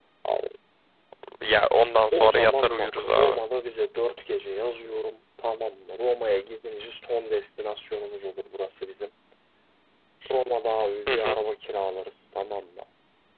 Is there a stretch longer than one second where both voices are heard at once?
Yes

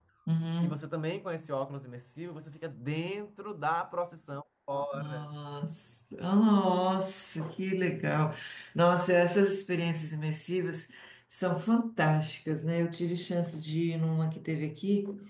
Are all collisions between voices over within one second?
Yes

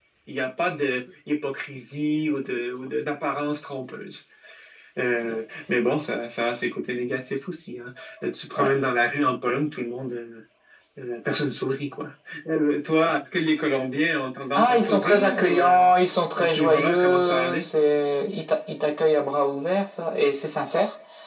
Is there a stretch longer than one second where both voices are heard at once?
Yes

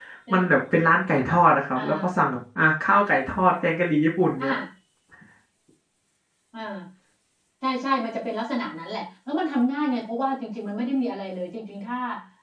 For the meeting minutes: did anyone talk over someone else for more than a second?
No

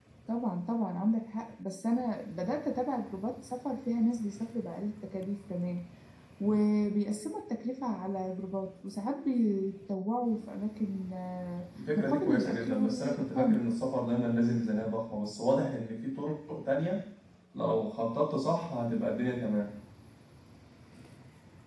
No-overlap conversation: No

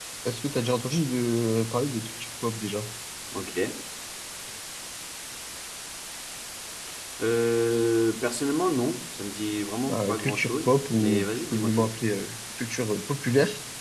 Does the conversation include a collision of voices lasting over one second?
Yes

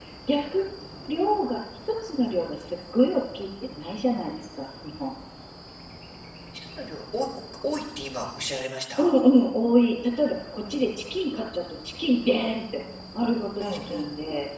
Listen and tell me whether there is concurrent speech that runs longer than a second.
No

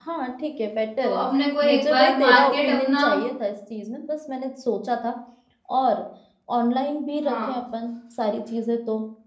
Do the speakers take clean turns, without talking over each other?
No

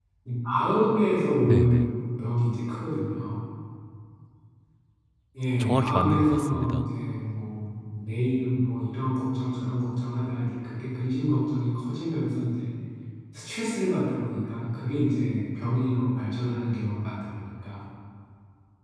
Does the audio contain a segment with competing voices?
Yes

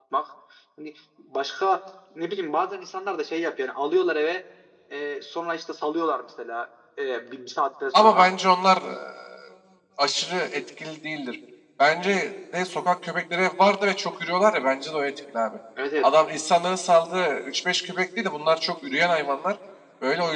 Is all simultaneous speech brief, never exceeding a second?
Yes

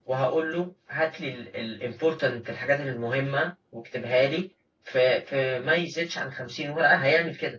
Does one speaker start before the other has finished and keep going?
No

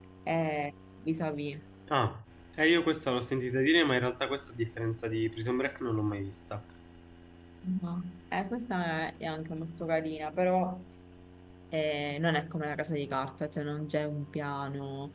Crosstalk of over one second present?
No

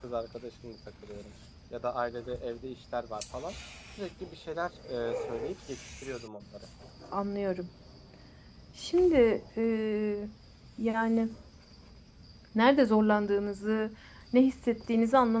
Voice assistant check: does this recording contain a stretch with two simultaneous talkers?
No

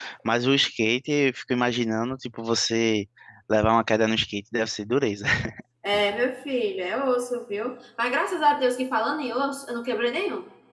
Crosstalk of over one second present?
No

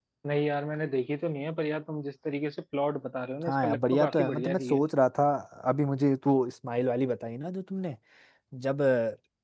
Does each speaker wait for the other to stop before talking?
No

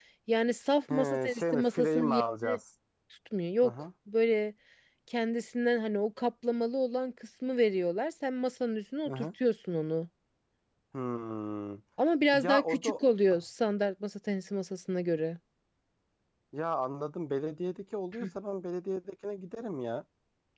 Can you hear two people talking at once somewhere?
Yes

